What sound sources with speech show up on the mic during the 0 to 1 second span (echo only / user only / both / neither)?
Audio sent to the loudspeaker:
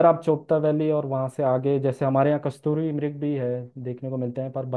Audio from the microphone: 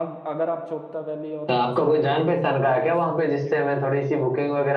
echo only